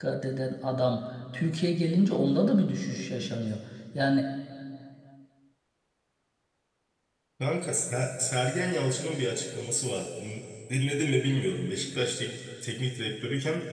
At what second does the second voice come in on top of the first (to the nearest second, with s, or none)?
none